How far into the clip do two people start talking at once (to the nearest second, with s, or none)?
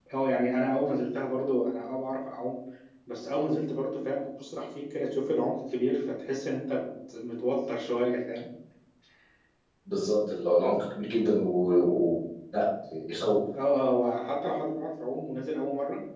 none